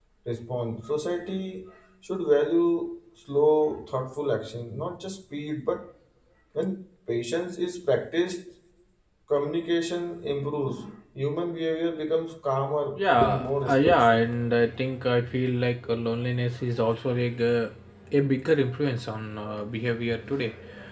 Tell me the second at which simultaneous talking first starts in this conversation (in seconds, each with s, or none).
12.9 s